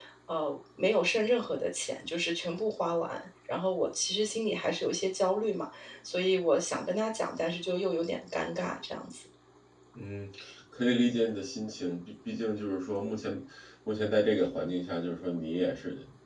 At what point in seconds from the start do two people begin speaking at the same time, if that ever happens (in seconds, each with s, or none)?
none